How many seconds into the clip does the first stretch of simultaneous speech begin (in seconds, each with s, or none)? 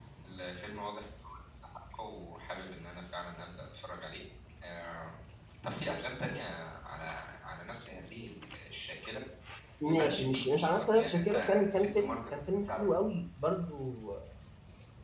9.8 s